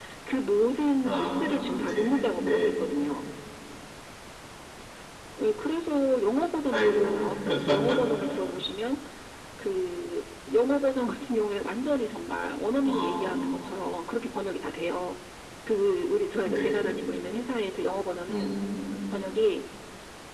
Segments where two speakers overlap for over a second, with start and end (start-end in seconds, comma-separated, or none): 1.0-2.7